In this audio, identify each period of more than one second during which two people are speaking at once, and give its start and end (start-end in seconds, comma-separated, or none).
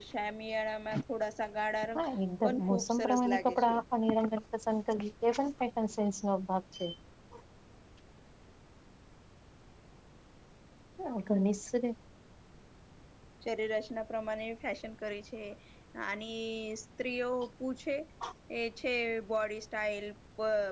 2.4-3.8